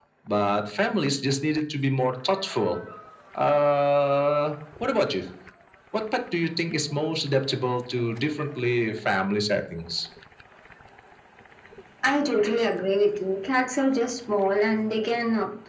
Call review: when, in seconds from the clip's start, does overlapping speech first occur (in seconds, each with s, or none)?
none